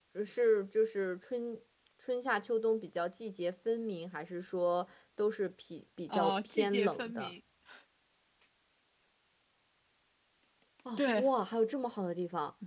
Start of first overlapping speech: 6 s

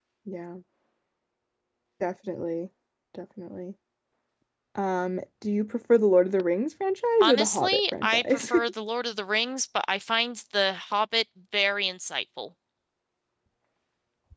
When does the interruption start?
7 s

